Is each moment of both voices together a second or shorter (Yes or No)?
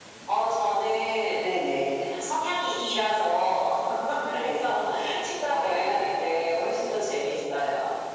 No